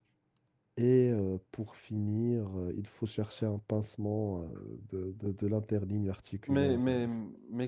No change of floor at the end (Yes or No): No